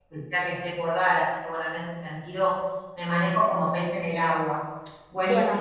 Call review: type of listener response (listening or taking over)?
taking over